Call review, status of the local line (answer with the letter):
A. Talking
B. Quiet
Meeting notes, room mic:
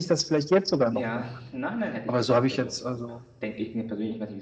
A